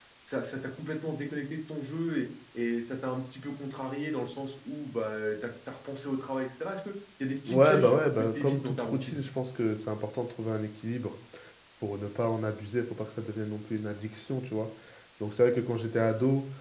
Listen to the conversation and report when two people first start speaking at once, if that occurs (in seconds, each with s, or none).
7.5 s